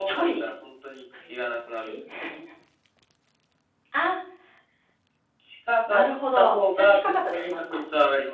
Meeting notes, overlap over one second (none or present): present